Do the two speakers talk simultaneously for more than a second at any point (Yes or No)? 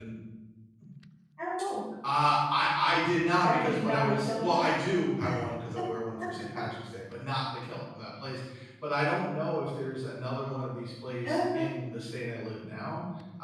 Yes